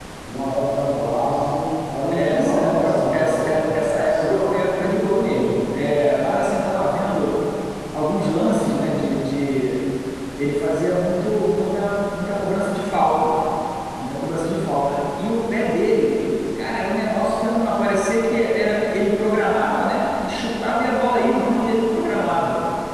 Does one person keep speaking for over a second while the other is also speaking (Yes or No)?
Yes